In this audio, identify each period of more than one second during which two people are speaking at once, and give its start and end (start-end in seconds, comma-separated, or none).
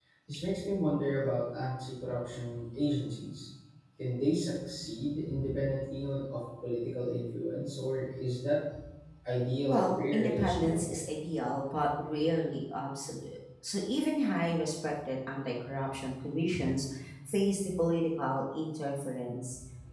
9.7-11.0